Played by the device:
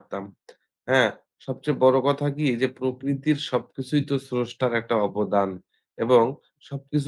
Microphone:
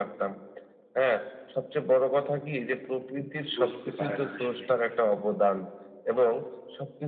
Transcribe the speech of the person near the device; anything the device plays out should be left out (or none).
বুঝতে পারে না আসলেই।